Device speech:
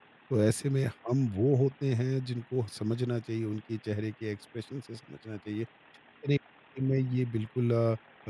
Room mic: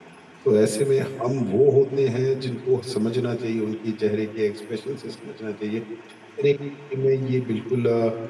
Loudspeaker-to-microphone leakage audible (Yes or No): Yes